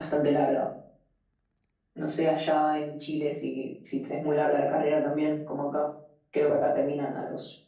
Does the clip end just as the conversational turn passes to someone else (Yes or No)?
No